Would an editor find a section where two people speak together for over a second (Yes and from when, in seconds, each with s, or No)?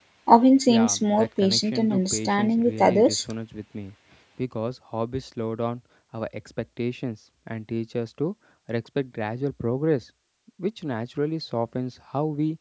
Yes, from 0.7 s